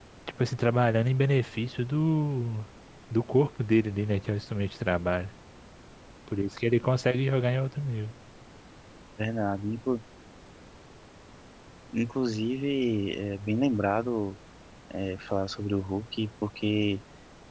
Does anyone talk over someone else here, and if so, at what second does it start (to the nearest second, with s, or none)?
none